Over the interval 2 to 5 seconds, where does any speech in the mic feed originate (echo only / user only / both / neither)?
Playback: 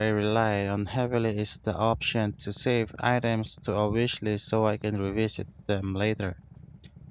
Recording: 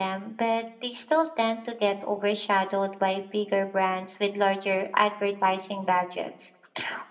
user only